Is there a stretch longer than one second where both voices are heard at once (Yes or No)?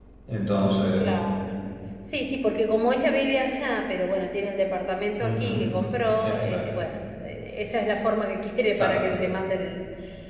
No